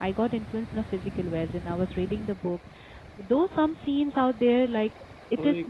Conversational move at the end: listening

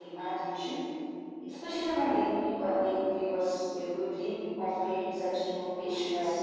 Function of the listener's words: taking over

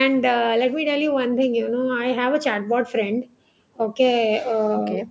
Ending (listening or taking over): listening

